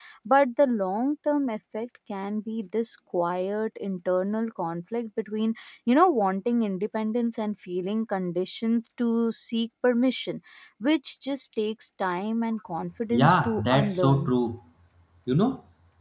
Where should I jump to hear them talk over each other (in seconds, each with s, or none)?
13.1 s